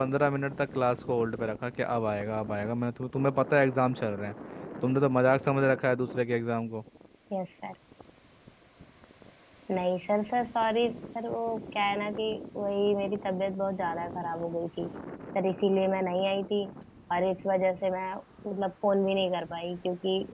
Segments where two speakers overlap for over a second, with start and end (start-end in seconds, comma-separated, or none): none